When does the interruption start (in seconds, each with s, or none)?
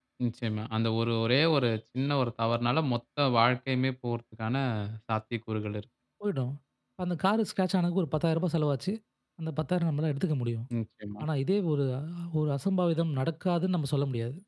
none